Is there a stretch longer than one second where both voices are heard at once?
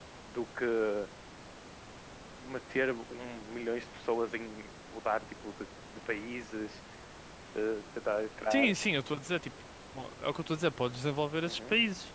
No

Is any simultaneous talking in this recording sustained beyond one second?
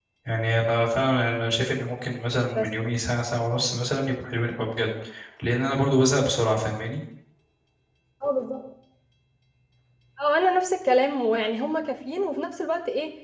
No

